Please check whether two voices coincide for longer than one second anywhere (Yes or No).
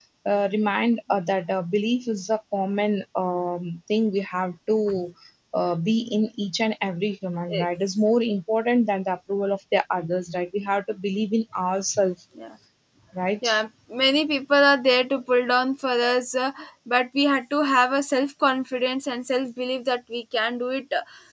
No